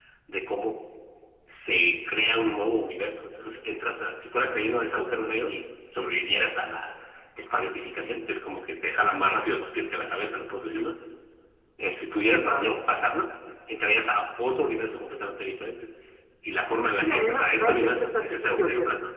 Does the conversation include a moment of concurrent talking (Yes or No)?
Yes